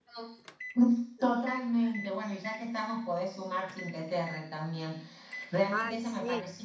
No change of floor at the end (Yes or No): Yes